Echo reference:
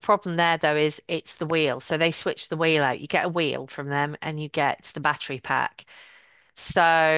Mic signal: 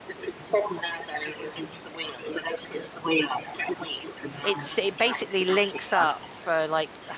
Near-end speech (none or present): present